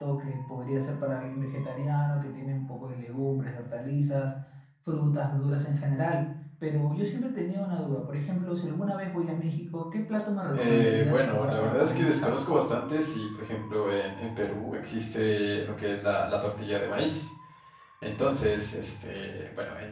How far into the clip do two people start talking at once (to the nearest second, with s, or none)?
11 s